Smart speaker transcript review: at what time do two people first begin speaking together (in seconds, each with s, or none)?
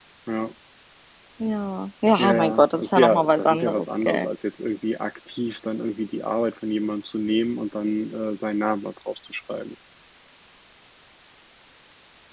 2.2 s